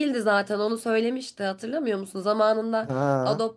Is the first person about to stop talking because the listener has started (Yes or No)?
No